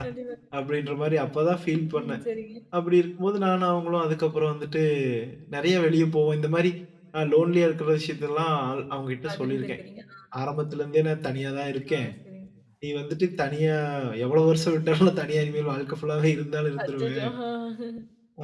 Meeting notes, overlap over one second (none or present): none